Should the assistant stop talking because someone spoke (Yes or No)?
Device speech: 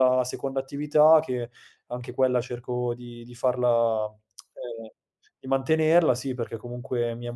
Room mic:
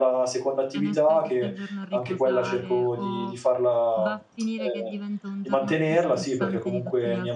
Yes